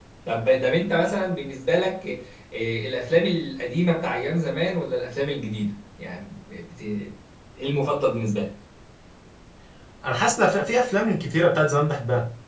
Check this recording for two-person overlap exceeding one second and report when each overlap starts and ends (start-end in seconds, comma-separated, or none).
none